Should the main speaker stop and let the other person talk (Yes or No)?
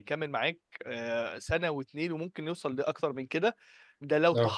No